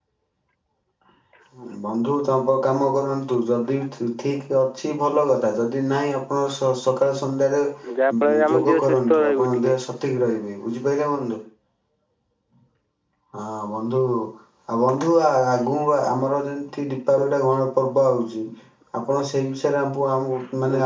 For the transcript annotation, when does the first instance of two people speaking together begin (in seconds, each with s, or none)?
8.1 s